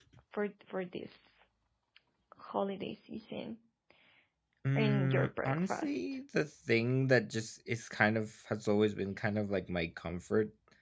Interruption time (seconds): 4.8 s

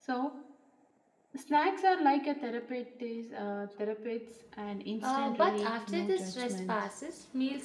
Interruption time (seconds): 5.0 s

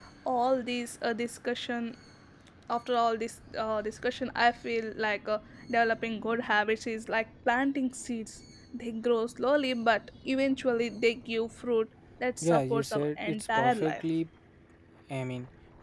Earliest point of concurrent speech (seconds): 12.4 s

